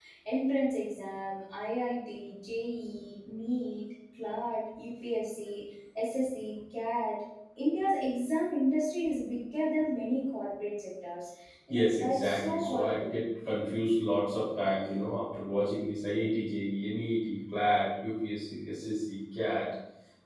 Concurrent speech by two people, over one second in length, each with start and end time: 11.7-13.2

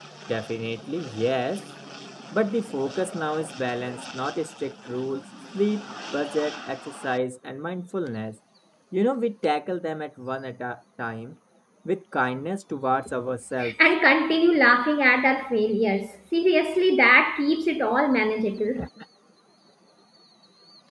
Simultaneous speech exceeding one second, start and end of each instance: none

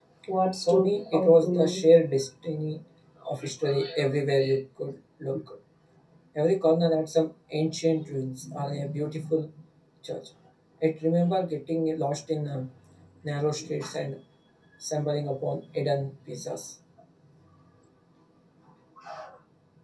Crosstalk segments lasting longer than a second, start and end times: 0.6-1.8

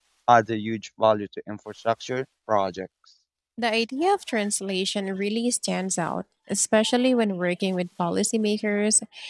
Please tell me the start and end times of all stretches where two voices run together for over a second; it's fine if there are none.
none

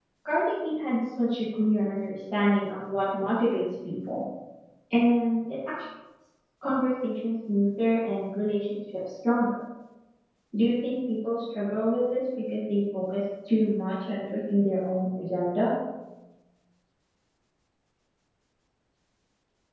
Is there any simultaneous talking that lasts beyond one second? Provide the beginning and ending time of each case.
none

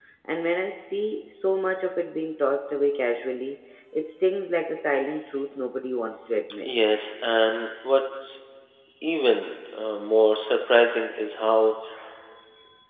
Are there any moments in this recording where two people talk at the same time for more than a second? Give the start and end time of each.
none

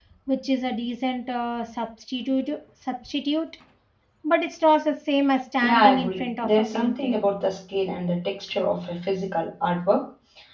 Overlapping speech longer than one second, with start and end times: 5.6-7.2

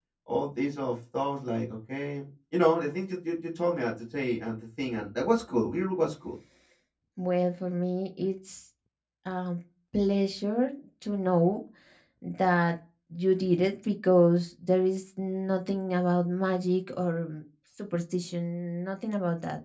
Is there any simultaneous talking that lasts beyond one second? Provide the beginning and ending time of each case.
none

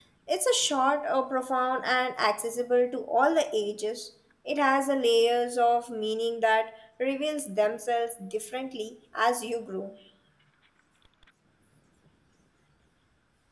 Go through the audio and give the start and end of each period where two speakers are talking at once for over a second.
none

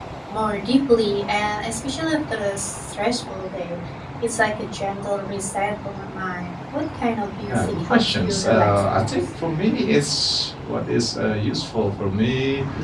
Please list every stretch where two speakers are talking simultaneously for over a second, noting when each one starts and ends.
7.5-9.1

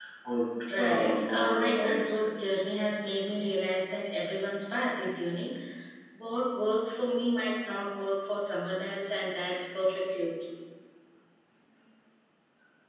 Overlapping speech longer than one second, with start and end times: 0.8-2.7

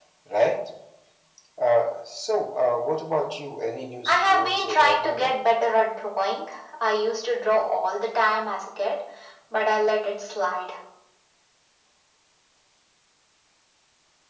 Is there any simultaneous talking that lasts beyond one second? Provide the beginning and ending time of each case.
4.0-5.3

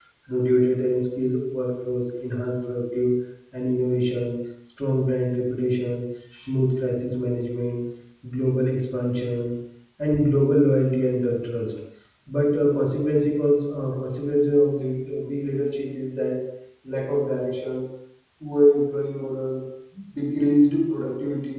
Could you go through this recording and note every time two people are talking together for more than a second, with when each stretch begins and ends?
none

